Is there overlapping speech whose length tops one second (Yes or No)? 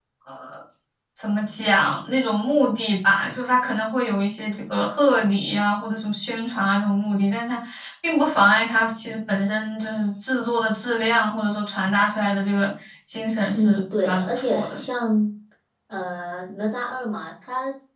Yes